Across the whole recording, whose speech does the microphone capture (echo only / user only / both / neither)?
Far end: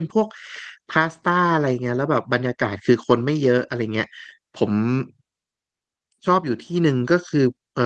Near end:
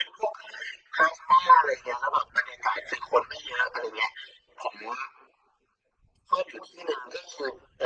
echo only